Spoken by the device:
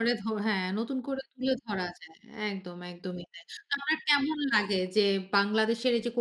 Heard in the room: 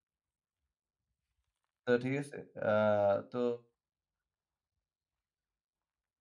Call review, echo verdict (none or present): none